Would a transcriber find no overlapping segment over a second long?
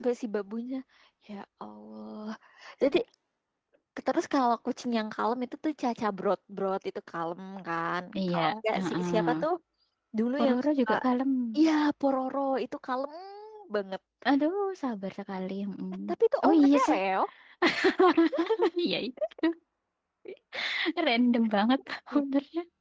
No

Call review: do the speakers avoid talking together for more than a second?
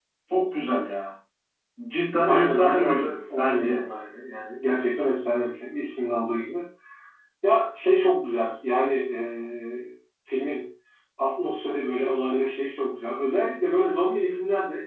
No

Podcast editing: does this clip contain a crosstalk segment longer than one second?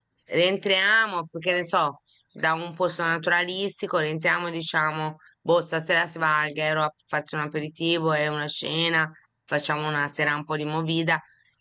No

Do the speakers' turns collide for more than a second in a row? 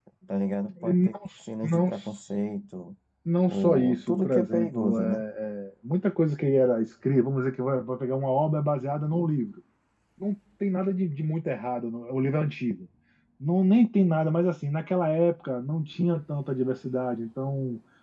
Yes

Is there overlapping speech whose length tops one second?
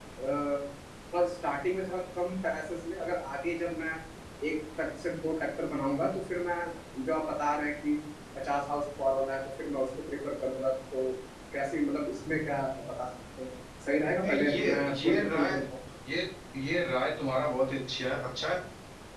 Yes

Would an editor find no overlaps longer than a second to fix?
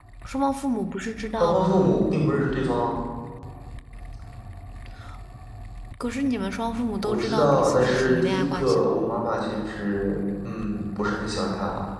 No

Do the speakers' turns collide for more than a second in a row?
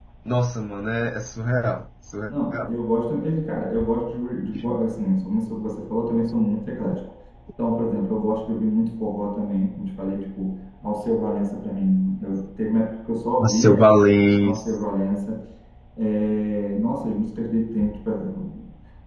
No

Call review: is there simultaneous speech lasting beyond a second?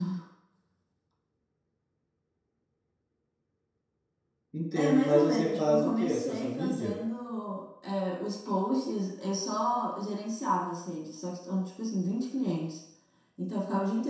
Yes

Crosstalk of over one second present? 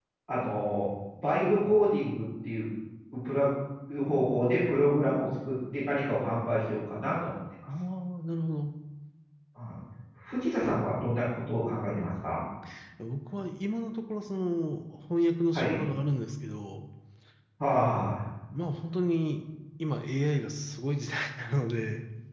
No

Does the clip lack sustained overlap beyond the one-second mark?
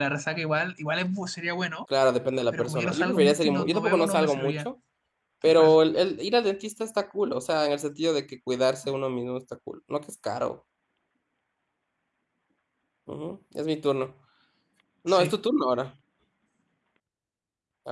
No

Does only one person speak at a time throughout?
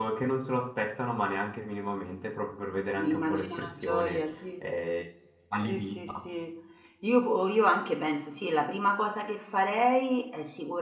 No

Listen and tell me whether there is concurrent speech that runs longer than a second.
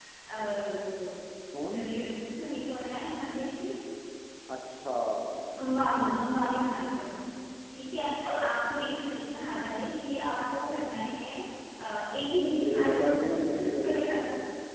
Yes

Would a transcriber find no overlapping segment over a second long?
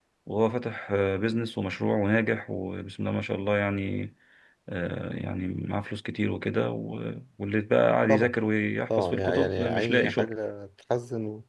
No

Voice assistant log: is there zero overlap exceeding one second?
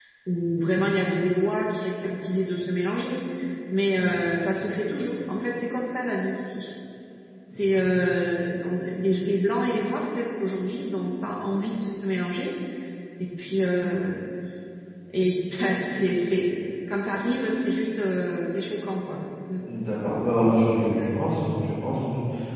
Yes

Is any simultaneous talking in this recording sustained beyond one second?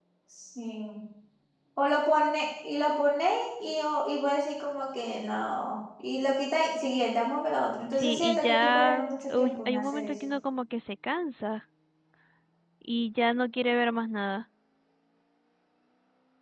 Yes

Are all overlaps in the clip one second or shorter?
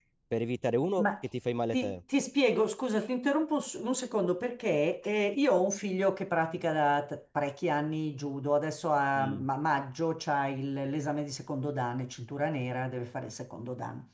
Yes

